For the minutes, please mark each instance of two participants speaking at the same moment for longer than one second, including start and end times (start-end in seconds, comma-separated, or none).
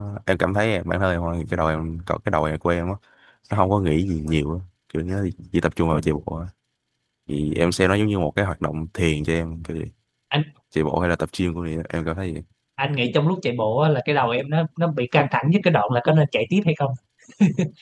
none